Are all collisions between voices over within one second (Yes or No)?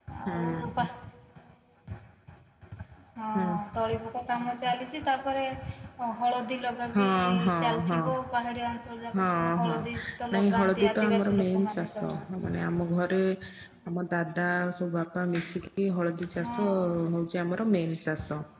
No